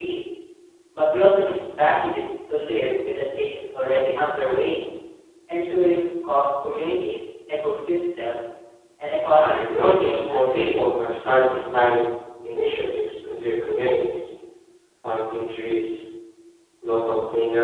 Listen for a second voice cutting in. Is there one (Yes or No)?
Yes